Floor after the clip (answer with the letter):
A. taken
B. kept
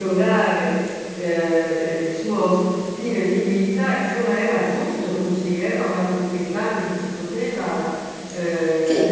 A